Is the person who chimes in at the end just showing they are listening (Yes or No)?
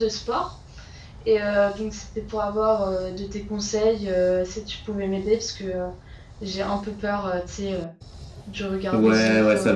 No